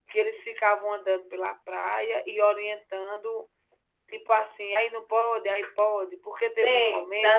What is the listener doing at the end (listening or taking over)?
taking over